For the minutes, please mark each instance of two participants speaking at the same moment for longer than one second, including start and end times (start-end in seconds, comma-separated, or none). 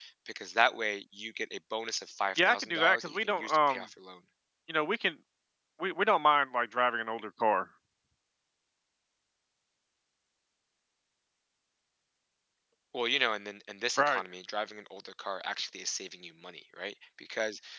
2.4-3.8